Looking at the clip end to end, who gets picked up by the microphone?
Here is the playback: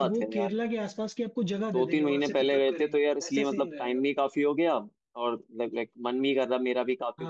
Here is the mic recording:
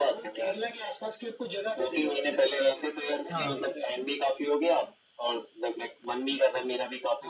both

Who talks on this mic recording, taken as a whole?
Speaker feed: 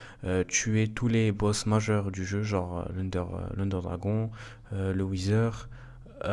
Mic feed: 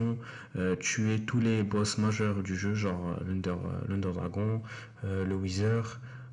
echo only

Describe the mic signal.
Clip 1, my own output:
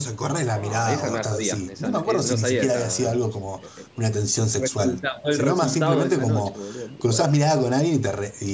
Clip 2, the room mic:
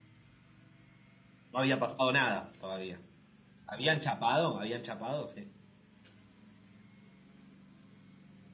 user only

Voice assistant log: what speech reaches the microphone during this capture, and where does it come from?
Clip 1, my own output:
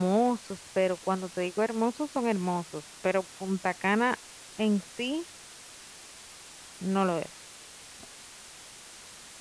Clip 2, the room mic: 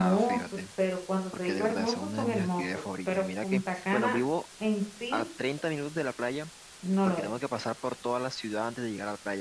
both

